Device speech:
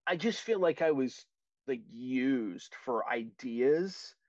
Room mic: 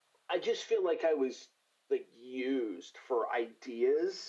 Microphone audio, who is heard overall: echo only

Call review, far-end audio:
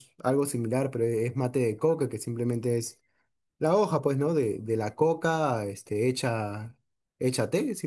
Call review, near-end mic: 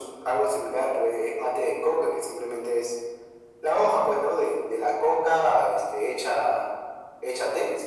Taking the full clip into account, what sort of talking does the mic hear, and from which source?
echo only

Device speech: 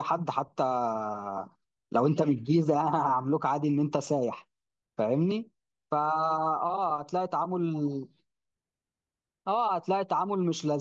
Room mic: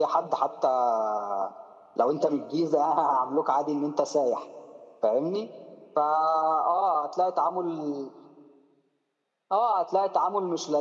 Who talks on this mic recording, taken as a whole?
echo only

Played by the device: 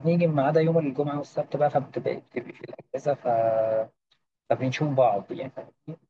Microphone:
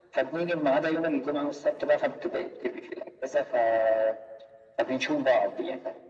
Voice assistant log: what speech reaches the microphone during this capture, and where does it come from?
echo only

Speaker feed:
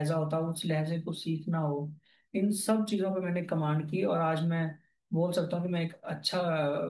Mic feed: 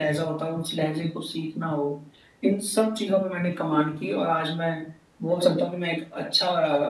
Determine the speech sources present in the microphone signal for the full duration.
echo only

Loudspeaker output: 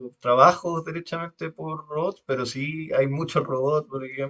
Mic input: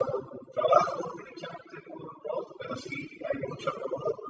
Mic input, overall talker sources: echo only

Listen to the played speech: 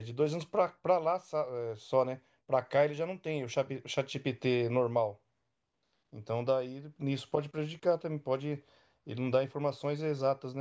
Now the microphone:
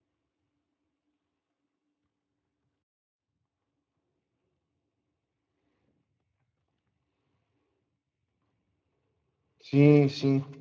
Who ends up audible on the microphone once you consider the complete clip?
user only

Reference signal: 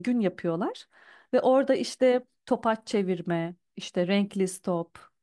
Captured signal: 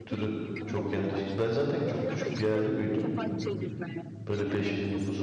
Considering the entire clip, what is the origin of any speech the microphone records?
both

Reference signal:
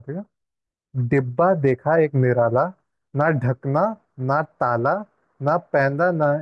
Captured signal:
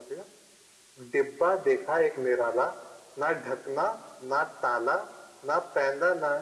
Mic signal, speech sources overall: echo only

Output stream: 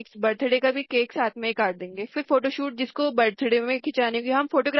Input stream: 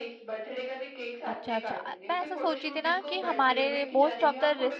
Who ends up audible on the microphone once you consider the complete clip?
both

